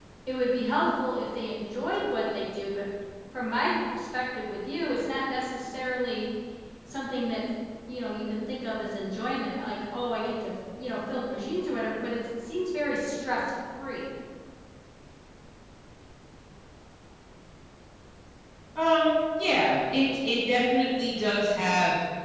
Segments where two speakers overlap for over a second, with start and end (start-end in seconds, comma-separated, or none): none